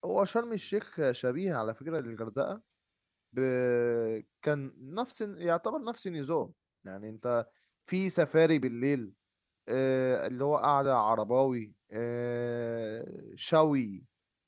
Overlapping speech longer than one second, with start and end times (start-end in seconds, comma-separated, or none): none